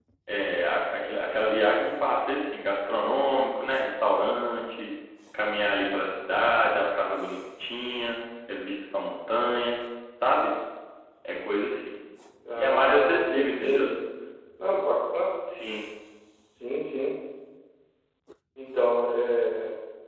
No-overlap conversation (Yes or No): No